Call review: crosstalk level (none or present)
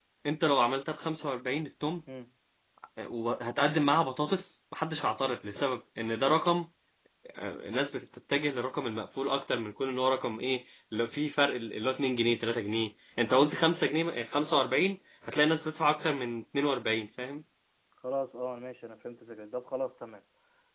none